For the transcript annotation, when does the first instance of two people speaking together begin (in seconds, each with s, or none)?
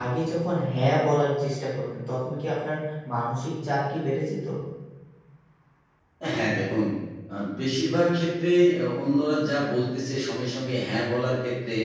none